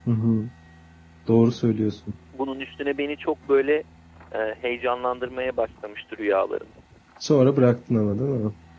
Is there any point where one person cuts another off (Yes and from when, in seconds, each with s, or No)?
No